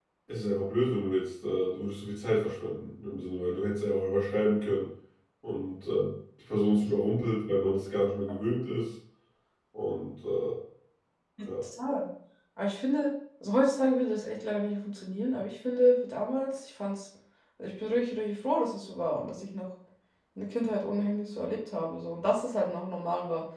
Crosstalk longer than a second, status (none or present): none